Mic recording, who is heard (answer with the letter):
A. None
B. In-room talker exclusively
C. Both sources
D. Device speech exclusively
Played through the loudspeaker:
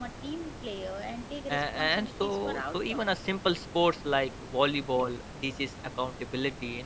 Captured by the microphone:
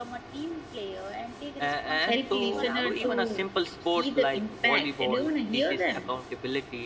C